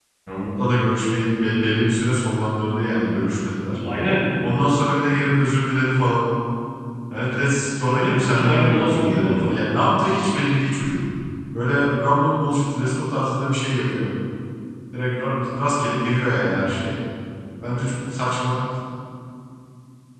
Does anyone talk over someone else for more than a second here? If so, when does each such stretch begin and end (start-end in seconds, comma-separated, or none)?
7.8-9.6